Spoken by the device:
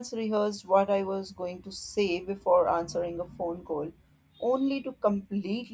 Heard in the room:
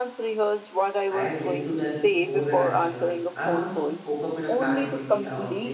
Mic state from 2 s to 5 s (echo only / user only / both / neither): both